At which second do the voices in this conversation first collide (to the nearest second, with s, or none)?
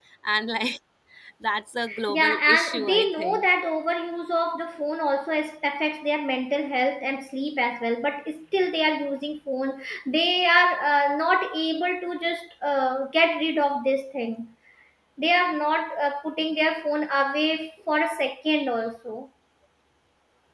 2 s